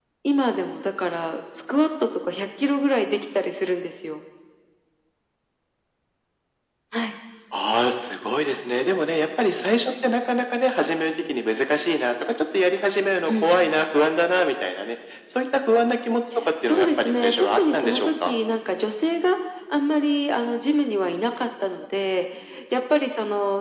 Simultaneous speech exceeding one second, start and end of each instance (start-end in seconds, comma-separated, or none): 16.6-18.3